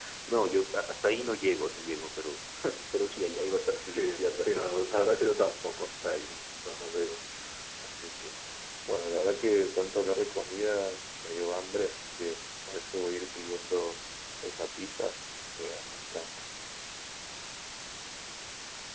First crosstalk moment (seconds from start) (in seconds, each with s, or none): 3.8 s